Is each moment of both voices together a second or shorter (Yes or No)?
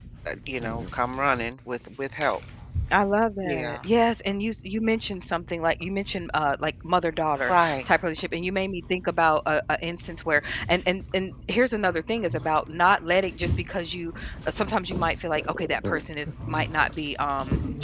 Yes